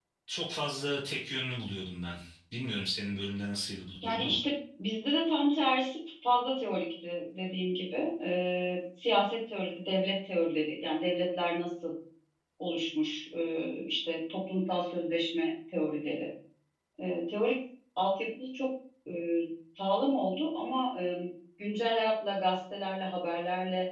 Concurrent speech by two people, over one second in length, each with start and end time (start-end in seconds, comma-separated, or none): none